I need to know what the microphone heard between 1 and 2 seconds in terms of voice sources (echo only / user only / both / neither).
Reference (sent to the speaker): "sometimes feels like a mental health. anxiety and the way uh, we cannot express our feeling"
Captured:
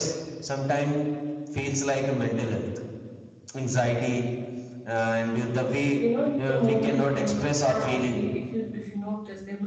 echo only